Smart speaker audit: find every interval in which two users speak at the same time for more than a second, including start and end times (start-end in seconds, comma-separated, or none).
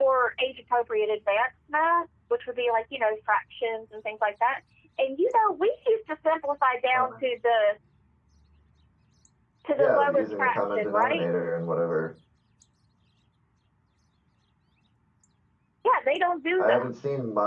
9.8-11.3